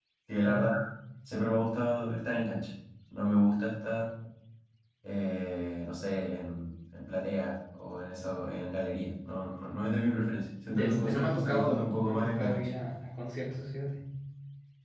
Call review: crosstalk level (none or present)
present